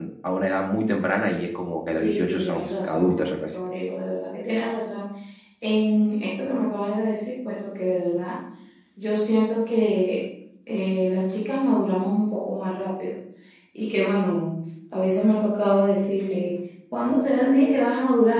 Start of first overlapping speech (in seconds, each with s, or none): 1.9 s